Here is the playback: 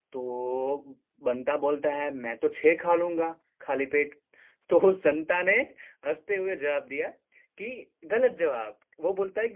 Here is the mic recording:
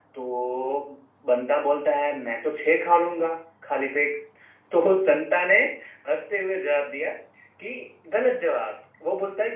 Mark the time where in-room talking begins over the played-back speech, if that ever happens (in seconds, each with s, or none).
none